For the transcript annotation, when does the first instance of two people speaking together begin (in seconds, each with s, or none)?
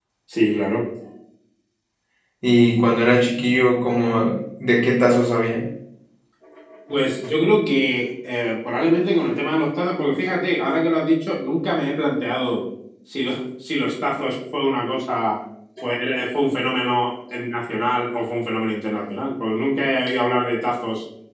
none